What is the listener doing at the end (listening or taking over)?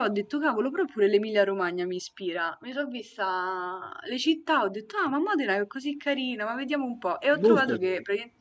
listening